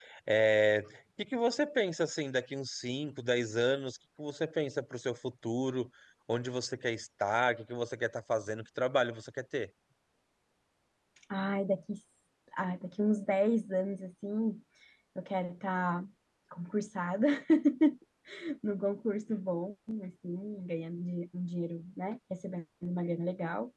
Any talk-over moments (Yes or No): No